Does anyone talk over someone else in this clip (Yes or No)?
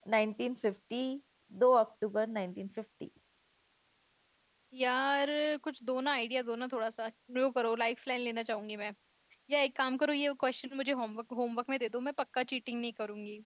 No